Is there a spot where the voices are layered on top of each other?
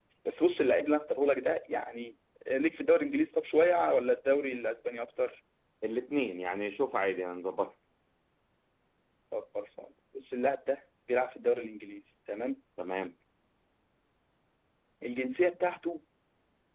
No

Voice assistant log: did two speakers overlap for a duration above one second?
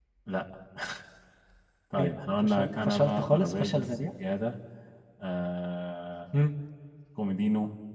Yes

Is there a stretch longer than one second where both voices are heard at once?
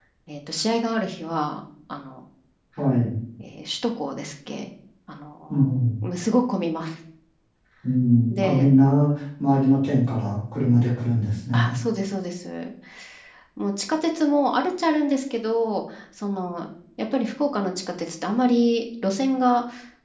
No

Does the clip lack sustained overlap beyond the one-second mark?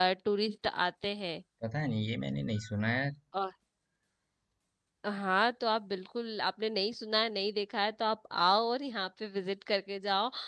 Yes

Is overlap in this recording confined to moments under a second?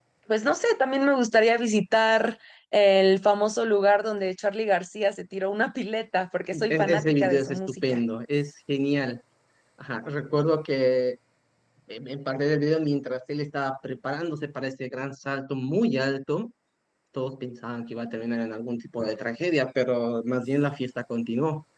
No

